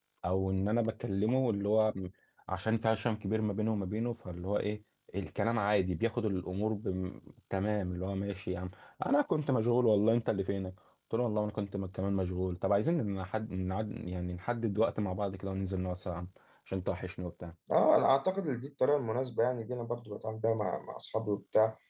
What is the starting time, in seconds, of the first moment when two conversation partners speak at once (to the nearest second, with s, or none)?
none